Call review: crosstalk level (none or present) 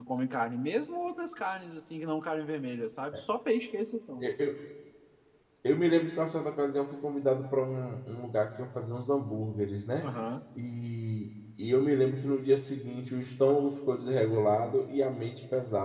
none